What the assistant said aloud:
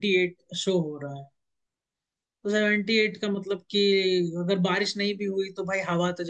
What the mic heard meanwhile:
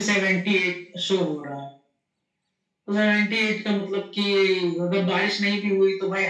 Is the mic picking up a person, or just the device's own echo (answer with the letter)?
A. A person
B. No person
B